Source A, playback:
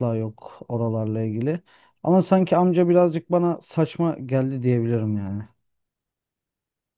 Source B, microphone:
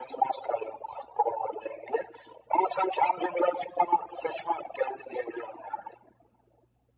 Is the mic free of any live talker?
Yes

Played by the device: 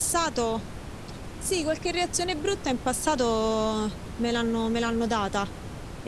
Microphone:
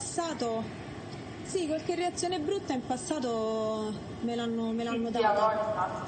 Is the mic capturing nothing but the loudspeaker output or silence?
No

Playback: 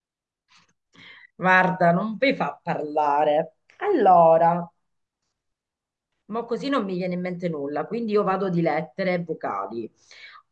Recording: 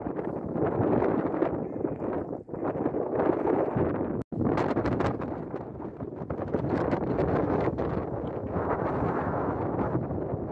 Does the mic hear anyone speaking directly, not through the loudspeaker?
No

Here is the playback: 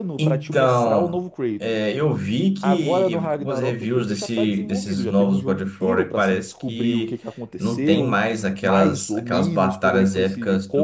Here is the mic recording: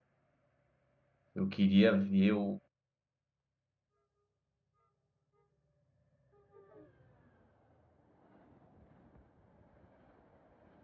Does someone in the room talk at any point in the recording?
Yes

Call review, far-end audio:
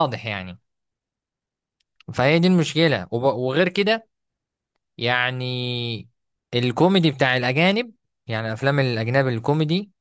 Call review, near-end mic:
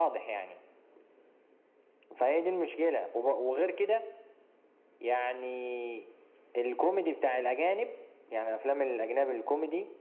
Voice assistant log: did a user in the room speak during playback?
No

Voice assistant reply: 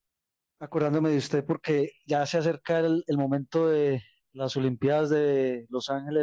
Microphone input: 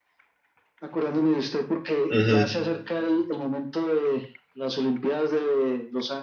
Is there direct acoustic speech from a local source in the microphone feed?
Yes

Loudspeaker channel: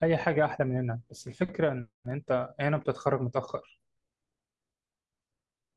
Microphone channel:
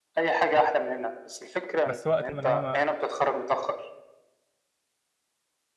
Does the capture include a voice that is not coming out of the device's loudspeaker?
Yes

